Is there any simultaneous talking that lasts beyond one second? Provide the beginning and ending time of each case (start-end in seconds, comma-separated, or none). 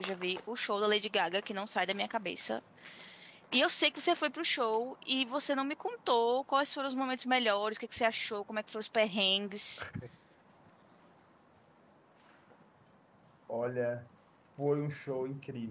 none